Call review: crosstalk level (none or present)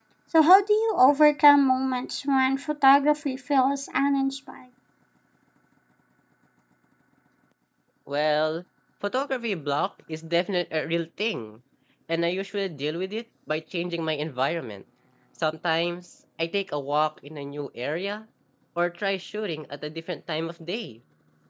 none